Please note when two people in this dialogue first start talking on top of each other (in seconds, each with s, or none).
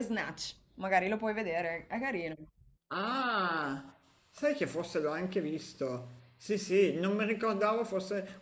none